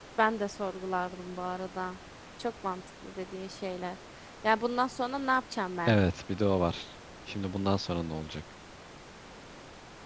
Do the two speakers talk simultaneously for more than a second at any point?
No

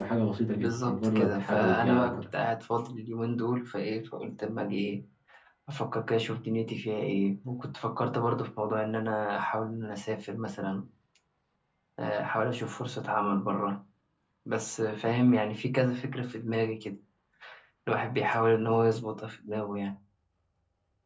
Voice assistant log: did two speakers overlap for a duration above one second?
Yes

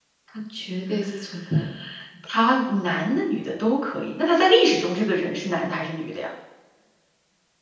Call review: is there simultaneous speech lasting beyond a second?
No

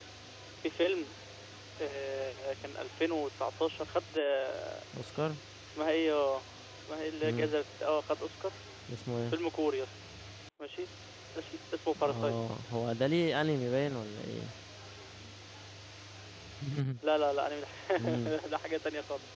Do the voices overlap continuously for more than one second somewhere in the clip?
No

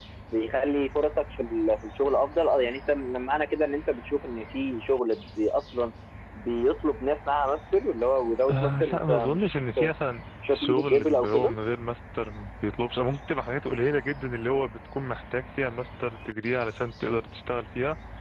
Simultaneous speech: Yes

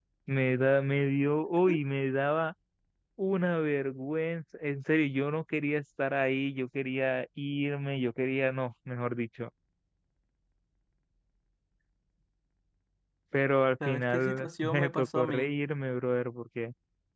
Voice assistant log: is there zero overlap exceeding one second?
No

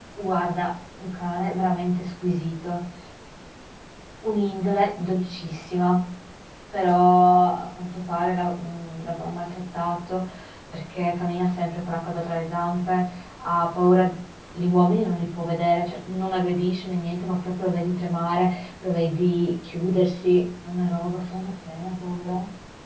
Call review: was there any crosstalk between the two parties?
No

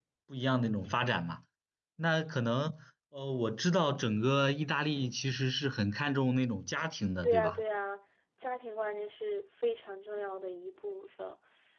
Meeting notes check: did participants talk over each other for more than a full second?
No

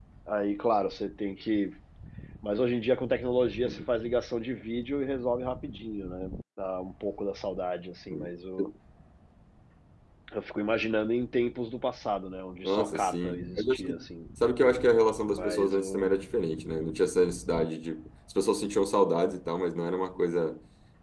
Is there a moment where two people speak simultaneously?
Yes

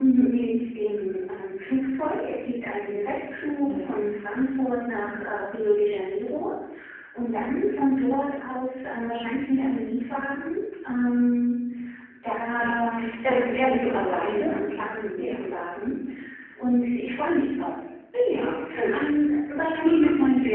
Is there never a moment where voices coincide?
No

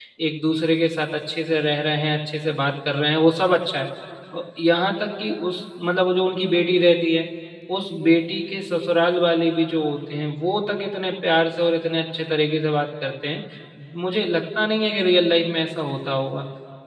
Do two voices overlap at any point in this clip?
No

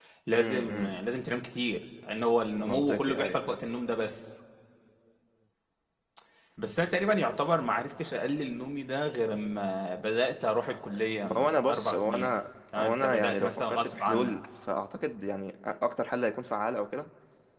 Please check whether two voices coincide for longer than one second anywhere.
Yes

